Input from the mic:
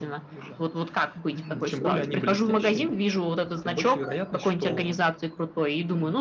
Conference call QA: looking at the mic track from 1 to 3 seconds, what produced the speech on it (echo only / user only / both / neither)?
echo only